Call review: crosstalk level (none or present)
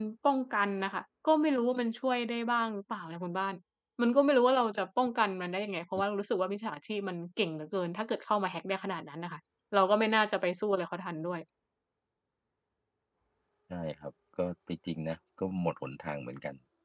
none